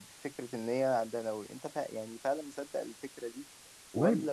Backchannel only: Yes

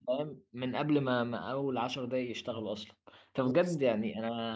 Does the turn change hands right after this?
No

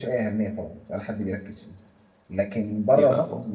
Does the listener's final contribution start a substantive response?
No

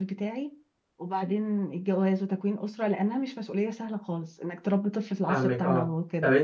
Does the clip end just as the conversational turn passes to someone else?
Yes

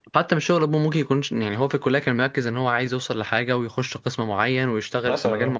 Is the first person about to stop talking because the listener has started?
No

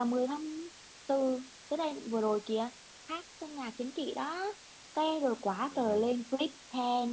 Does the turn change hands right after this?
No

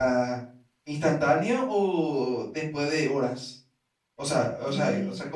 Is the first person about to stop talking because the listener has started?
No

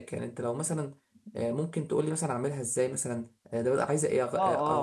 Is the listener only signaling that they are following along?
No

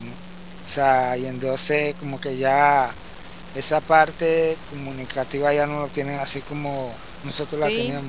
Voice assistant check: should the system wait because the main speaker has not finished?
No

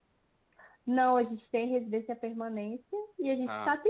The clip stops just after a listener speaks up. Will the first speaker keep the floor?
Yes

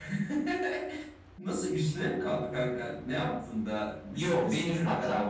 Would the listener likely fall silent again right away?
No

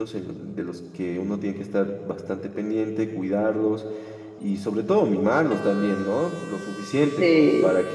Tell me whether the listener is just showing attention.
Yes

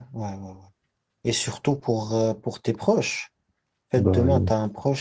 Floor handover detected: No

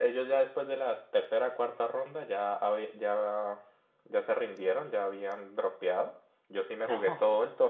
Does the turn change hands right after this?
No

